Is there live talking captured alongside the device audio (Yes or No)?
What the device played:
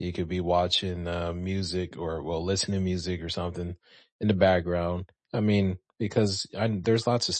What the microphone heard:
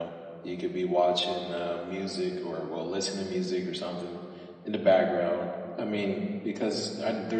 No